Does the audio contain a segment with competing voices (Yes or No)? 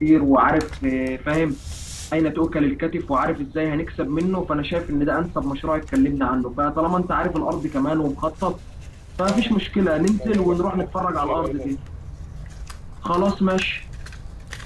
Yes